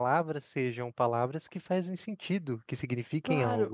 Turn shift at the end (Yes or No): Yes